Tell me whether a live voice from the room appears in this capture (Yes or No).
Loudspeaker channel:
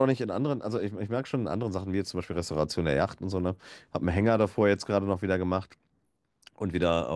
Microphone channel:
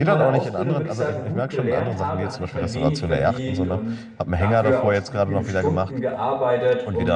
Yes